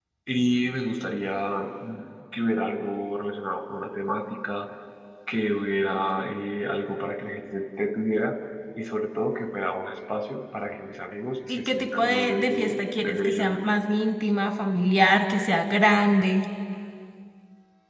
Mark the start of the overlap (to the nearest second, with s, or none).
11 s